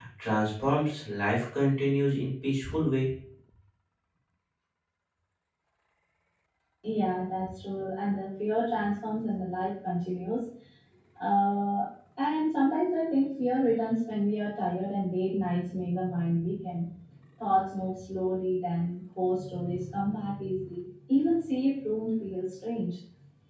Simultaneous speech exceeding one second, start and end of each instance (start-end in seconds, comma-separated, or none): none